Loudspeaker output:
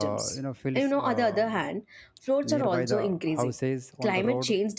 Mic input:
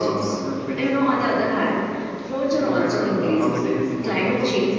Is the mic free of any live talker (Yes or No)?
No